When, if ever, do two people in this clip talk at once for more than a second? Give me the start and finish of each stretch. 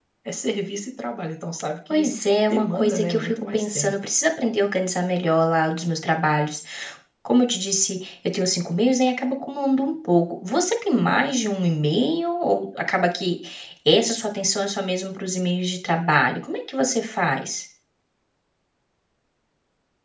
2.5-3.9

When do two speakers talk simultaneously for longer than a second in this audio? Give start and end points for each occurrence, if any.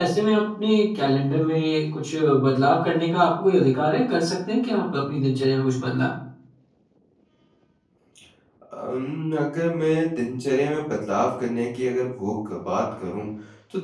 none

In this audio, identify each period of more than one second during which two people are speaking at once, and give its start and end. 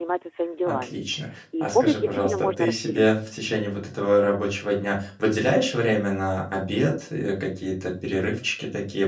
1.6-3.1

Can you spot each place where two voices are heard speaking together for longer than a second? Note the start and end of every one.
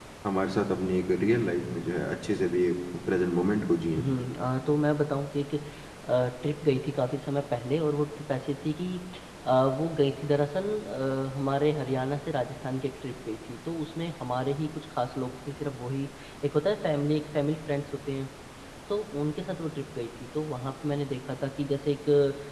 none

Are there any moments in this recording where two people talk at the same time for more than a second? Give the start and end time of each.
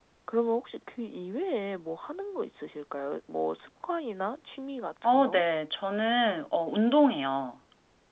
none

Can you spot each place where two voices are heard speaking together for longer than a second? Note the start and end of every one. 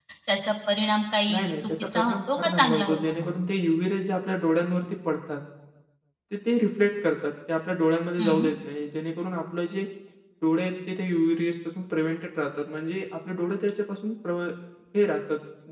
1.3-3.3

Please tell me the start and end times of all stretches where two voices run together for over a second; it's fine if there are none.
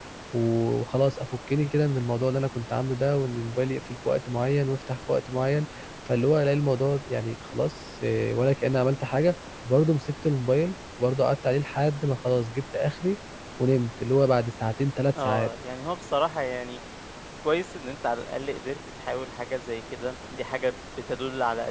none

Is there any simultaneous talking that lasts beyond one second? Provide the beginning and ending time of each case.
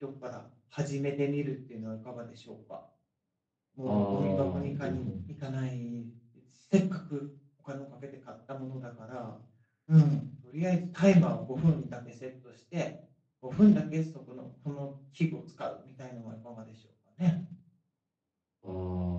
3.9-5.1

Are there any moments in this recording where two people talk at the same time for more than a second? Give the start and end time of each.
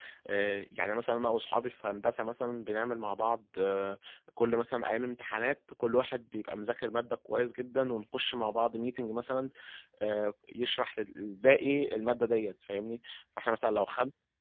none

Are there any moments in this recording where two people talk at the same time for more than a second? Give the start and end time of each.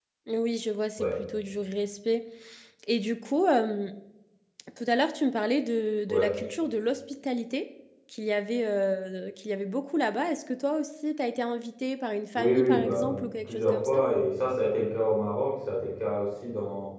12.4-14.0

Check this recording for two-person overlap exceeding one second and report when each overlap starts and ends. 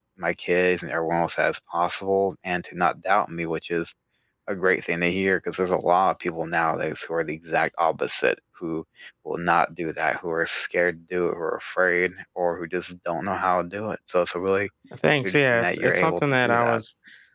15.2-16.8

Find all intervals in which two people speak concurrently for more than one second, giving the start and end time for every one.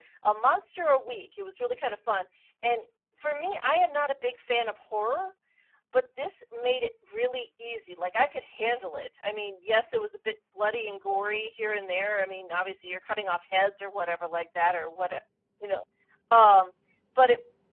none

